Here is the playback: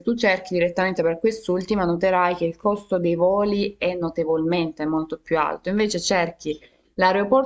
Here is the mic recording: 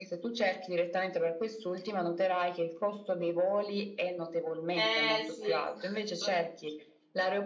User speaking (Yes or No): Yes